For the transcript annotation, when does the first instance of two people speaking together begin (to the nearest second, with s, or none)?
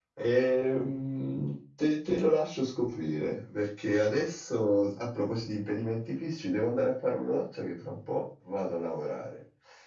none